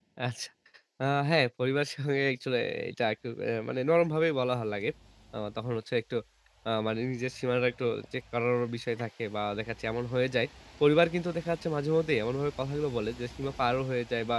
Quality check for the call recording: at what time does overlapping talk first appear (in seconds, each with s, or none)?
none